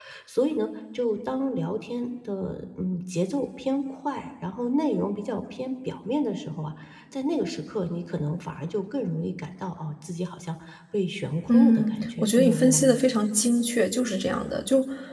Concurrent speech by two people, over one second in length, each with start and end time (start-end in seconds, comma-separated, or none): 11.5-13.0